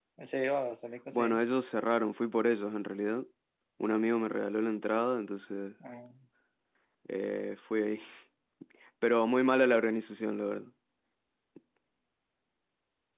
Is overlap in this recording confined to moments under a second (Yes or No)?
Yes